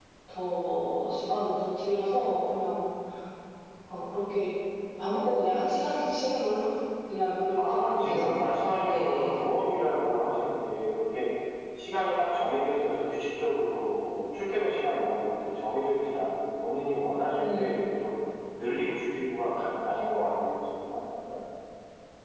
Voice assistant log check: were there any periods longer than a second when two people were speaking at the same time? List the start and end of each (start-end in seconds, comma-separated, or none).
7.6-9.4